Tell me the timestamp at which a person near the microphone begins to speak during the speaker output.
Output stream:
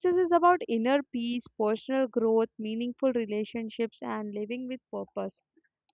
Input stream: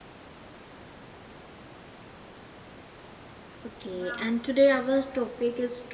4 s

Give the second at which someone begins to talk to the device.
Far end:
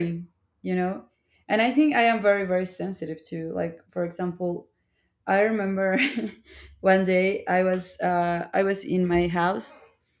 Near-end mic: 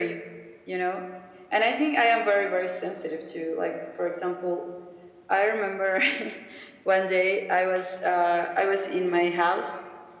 none

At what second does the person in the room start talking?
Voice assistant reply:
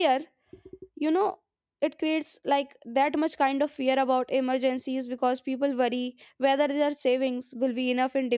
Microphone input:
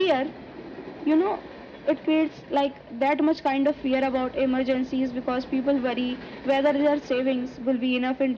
none

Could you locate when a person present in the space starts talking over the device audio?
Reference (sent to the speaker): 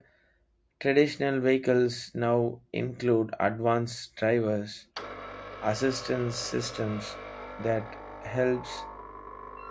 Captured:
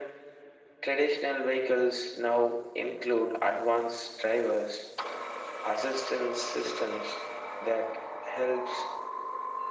none

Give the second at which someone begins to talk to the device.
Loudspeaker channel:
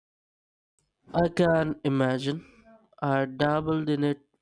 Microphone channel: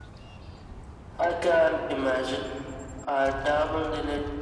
none

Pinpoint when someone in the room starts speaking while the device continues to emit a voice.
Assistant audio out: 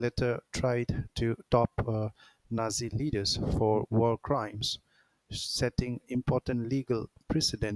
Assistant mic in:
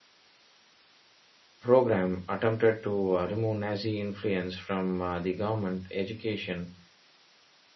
2 s

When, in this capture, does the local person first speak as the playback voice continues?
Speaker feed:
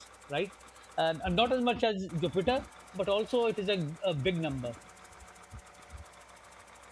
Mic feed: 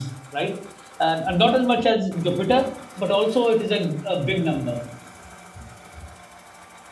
none

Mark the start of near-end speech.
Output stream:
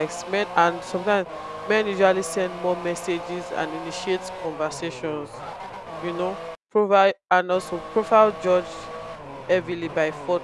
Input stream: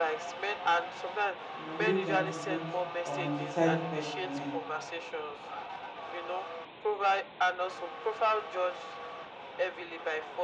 2 s

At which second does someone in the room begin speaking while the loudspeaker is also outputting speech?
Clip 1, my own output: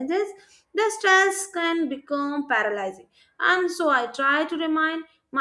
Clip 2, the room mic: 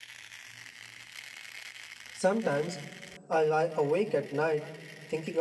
2 s

